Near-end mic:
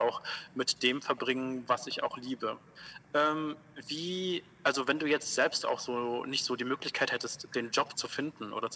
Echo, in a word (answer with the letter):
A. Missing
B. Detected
B